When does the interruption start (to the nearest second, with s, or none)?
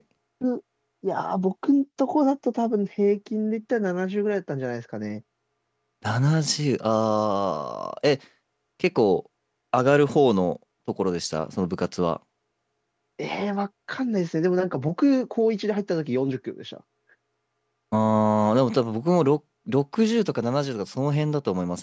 none